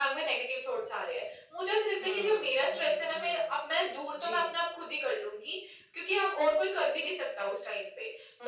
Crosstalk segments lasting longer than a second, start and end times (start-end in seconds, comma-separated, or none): 2.0-3.5